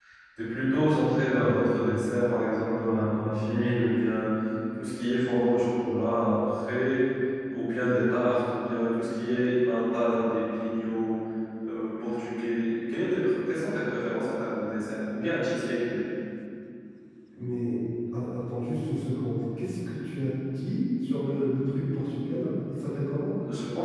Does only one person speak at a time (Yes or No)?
Yes